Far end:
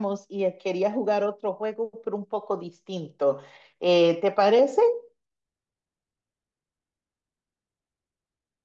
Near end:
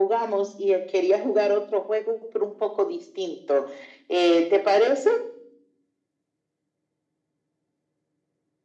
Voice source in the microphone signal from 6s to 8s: neither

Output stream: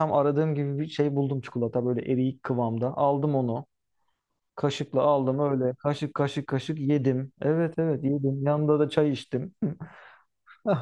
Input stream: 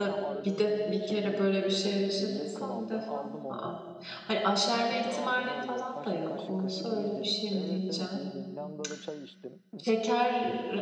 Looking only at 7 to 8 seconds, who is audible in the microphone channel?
both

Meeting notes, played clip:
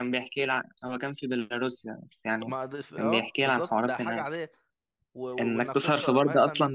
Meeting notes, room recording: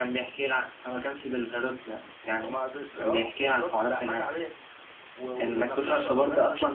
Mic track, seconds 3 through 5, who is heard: echo only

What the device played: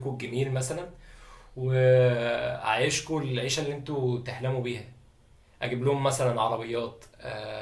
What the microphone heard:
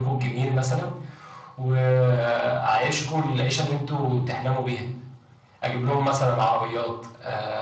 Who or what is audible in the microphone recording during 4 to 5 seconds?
echo only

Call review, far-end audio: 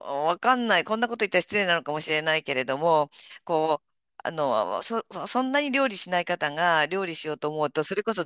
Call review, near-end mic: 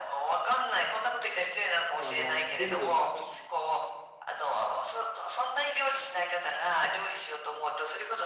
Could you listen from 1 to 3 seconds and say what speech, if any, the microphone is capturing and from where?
both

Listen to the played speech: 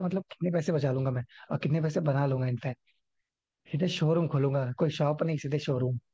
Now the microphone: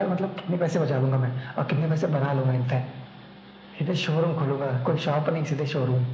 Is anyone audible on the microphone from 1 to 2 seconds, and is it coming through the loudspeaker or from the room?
echo only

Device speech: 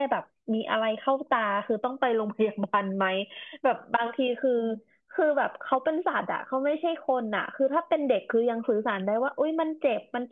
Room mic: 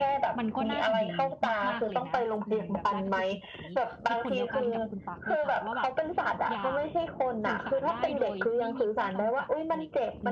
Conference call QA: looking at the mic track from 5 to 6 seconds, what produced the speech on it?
both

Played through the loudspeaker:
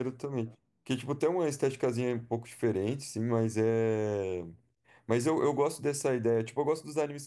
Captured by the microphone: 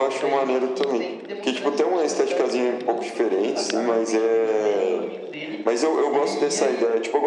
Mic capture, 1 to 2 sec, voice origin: both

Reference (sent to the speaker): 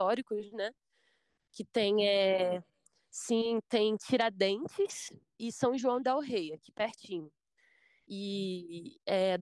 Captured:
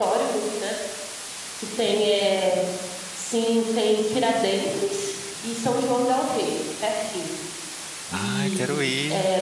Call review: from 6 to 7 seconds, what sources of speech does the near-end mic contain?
echo only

